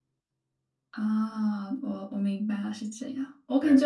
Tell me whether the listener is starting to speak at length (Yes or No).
No